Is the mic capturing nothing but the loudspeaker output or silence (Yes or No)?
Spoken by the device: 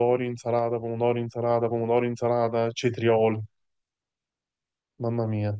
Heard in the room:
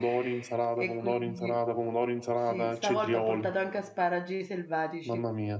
No